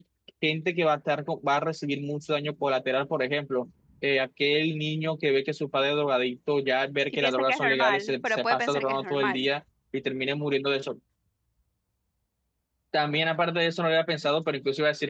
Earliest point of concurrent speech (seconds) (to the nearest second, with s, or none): 7 s